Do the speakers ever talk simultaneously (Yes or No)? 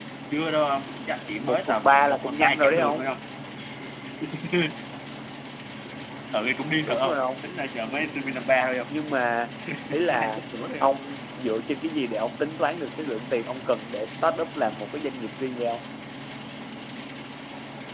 Yes